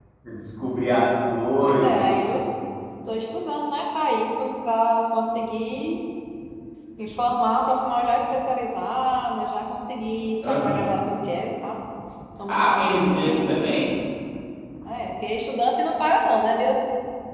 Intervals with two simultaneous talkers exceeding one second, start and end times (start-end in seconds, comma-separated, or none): 12.5-13.7